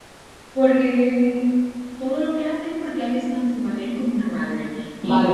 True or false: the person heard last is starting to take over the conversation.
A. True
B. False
A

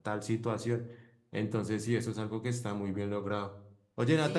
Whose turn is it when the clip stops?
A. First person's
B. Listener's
A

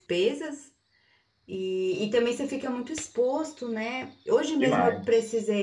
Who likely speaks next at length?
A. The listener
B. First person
B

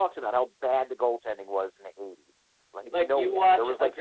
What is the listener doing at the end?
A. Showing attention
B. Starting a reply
B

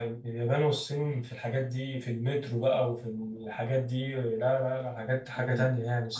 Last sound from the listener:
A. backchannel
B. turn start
B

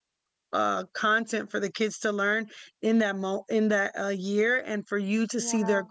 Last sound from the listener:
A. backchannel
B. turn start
A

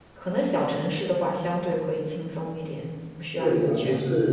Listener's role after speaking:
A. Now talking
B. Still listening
A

